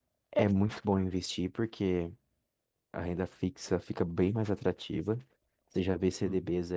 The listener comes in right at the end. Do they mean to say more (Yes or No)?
No